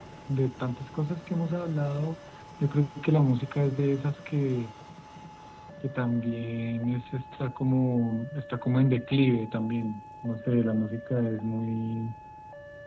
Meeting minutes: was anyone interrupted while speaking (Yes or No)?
No